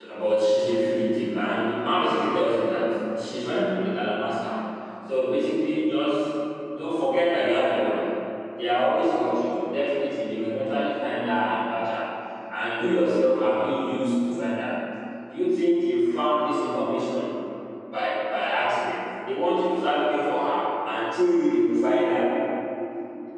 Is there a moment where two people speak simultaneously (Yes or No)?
No